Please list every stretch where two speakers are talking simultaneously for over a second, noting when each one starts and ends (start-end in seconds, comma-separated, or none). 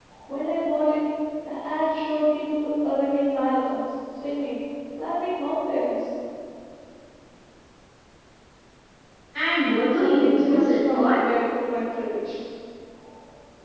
10.0-11.2